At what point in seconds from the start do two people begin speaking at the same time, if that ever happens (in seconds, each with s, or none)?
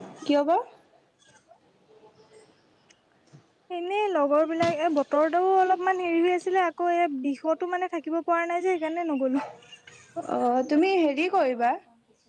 none